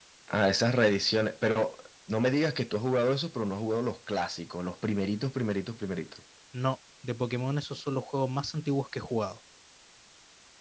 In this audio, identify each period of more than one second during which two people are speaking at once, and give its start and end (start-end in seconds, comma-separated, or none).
none